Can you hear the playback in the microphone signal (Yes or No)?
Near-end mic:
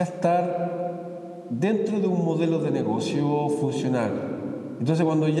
No